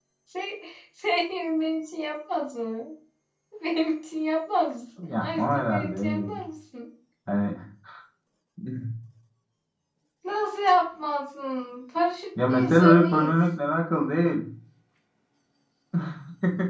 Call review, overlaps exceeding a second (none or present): present